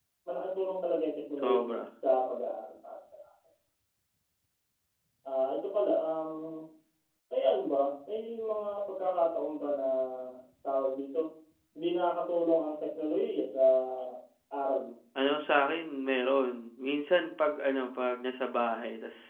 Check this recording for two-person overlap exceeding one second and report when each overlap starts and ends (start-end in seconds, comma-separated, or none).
none